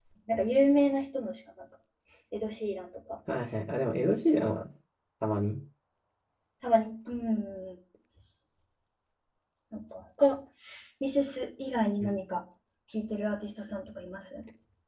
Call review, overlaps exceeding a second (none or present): none